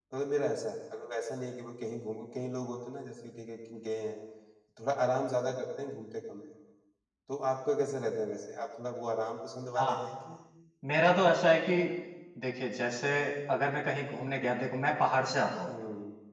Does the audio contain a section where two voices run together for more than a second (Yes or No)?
No